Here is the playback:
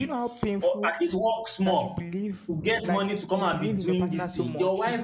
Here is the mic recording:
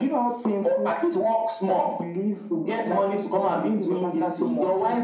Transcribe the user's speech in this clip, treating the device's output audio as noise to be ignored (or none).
none